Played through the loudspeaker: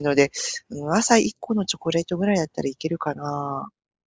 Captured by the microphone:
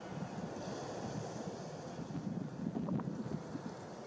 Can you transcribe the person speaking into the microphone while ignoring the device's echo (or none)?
none